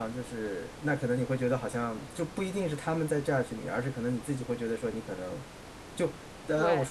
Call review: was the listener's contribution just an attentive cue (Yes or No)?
Yes